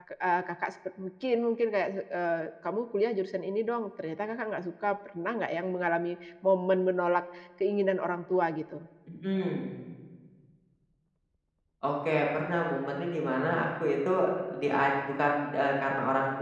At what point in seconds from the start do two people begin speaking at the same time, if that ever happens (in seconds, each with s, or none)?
none